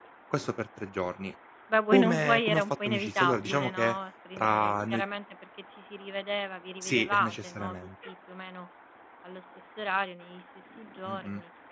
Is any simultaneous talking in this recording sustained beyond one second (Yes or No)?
Yes